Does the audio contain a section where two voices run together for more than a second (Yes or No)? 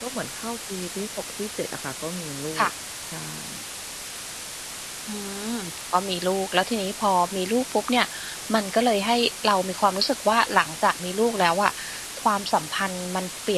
No